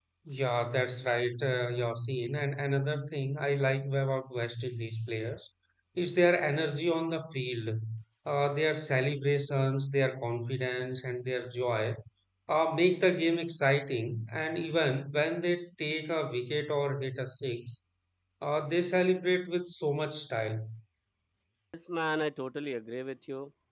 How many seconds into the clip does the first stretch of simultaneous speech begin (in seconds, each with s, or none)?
none